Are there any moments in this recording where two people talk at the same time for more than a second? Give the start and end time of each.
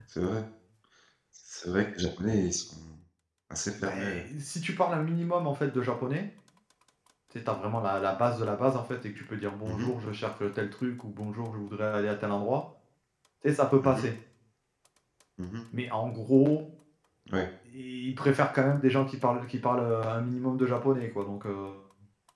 none

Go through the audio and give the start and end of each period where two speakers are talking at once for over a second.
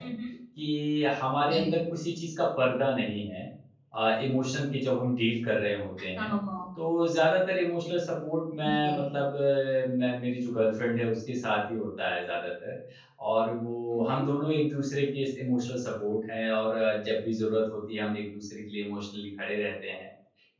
none

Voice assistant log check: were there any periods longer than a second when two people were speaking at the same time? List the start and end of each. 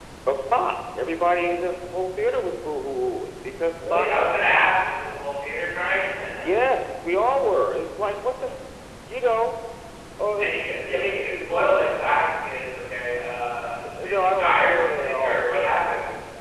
10.4-11.8, 14.0-15.5

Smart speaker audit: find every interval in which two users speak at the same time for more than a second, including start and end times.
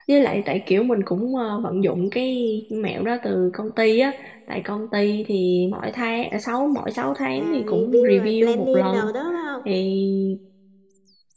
7.4-9.1

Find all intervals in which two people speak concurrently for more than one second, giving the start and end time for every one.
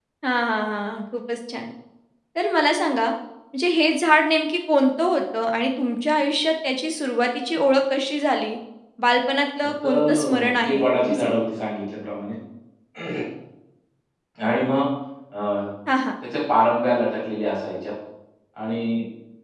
9.8-11.4

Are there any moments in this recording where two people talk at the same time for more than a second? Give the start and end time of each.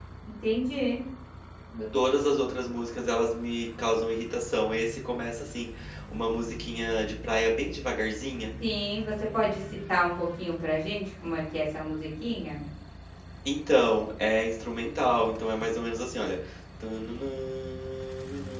none

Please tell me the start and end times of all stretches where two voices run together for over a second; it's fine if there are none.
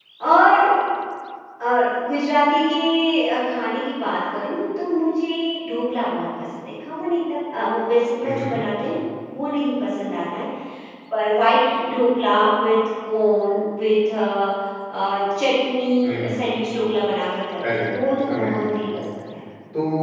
17.7-19.0

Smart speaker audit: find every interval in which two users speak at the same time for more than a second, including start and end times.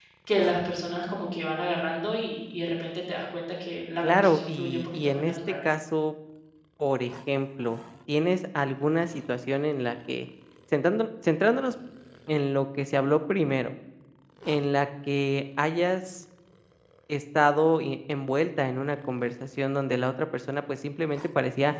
4.1-5.3

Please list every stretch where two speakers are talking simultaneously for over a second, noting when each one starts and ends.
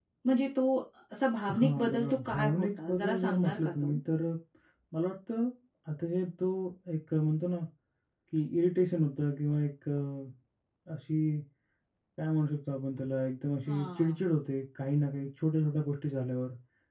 1.6-3.9

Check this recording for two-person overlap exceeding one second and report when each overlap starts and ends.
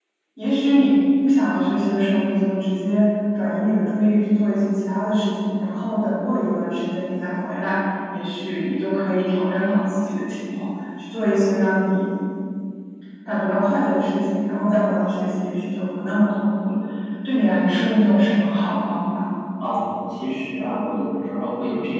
none

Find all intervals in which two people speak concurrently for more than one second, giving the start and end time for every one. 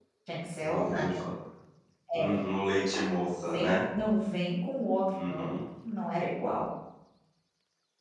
none

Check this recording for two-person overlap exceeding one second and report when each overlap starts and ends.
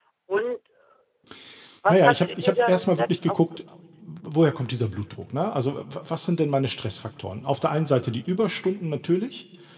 1.9-3.4

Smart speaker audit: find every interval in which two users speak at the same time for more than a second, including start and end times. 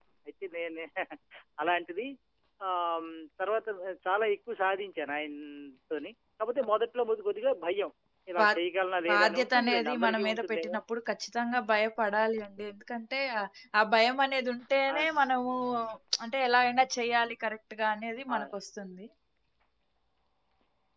9.1-10.8

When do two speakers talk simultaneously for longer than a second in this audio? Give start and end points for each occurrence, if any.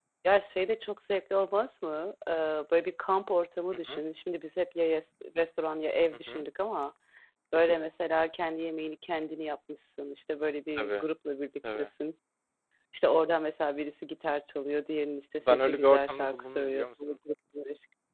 15.4-16.9

